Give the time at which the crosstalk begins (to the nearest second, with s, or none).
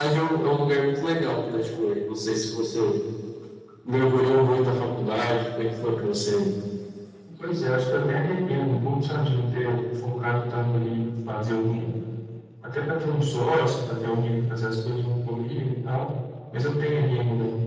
none